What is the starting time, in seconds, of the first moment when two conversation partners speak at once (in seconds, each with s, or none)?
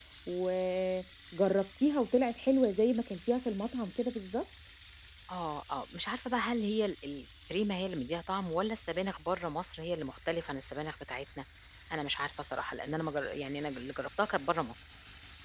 none